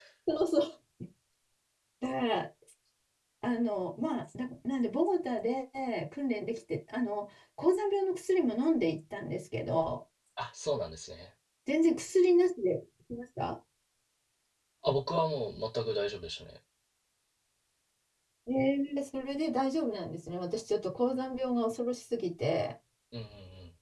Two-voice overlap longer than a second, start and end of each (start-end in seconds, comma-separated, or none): none